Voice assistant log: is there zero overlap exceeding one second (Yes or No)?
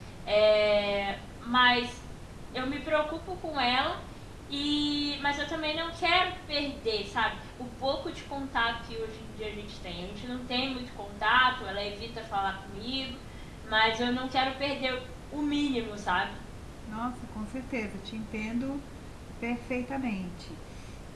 Yes